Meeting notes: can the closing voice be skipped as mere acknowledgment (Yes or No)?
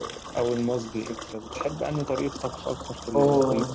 Yes